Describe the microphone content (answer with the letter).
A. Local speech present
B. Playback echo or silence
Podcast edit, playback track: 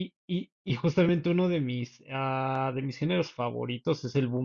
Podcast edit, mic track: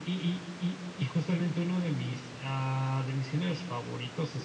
B